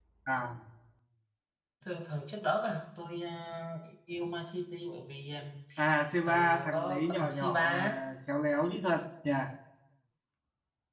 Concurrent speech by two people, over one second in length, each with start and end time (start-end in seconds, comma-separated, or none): 6.2-8.0